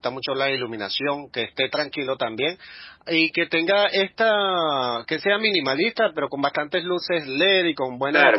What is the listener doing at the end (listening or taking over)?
taking over